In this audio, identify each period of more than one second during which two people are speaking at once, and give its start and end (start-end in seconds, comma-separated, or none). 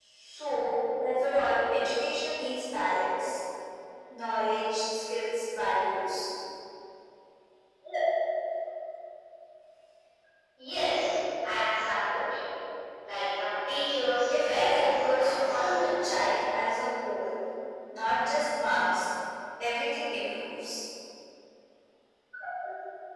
14.5-15.9